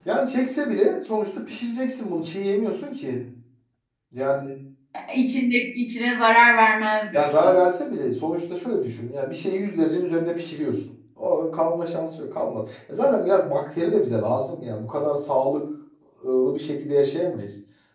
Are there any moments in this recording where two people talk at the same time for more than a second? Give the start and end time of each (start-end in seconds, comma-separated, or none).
none